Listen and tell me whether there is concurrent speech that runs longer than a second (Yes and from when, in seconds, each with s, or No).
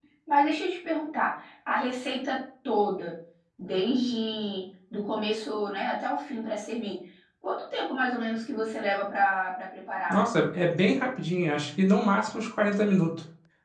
No